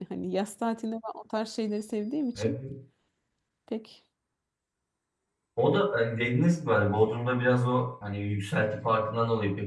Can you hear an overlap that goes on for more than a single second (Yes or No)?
No